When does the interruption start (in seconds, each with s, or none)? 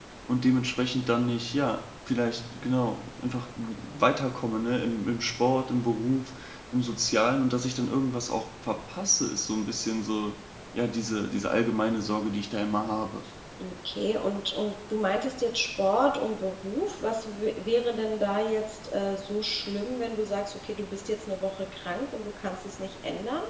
none